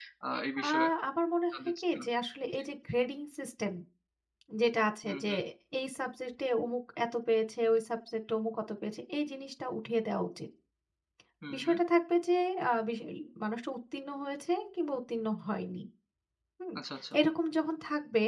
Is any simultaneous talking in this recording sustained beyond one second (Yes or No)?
No